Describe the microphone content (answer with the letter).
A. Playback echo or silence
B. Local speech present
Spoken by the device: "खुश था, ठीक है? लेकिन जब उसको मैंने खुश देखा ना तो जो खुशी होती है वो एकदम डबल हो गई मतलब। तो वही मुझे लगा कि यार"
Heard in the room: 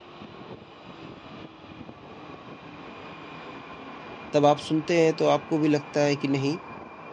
B